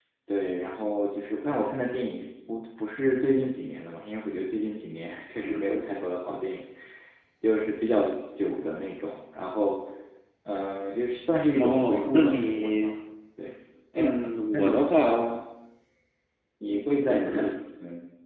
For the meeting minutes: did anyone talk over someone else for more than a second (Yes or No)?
Yes